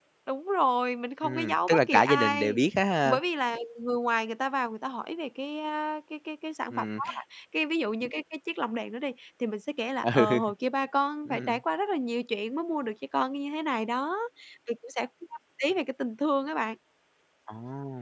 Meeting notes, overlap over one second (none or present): present